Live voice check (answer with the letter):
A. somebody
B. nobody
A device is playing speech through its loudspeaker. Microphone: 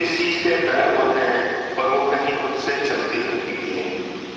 B